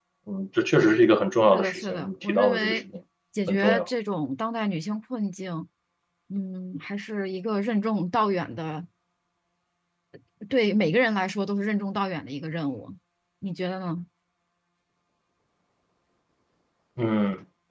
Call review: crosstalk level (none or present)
present